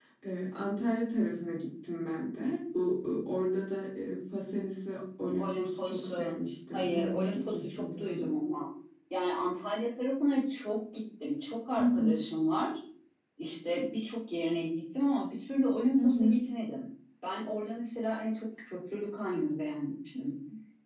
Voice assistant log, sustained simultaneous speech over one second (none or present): present